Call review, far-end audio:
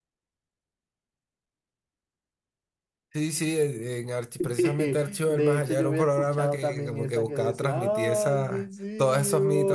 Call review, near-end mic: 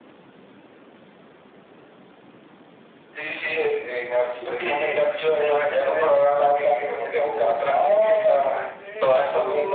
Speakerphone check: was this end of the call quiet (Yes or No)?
Yes